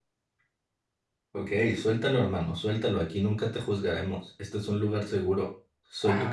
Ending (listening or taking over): taking over